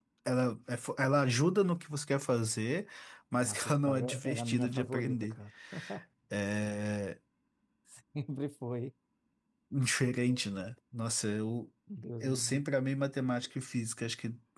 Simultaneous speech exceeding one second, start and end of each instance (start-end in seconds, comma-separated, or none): 3.4-5.4